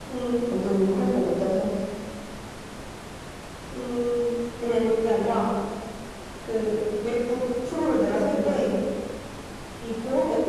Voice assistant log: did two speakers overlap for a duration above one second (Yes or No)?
No